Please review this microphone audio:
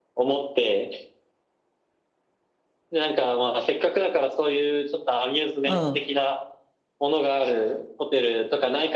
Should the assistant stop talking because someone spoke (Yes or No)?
Yes